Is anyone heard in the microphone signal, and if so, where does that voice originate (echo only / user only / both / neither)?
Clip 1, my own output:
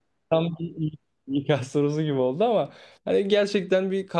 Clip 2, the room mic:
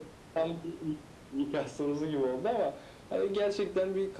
echo only